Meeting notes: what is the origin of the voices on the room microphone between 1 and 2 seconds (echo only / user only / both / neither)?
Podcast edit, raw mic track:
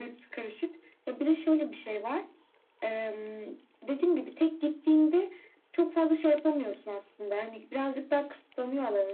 echo only